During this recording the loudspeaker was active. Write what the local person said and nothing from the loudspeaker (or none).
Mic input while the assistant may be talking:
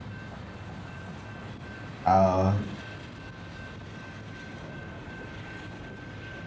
ờ